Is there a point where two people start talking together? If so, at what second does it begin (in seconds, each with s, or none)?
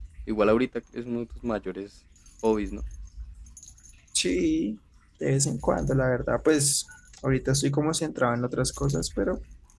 none